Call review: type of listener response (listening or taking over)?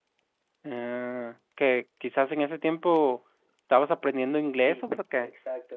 taking over